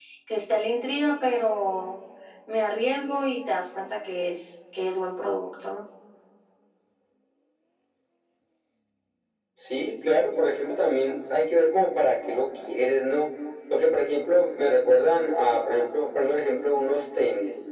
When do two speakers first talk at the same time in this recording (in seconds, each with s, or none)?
none